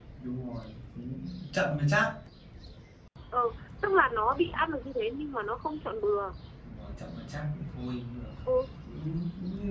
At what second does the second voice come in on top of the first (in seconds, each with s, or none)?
none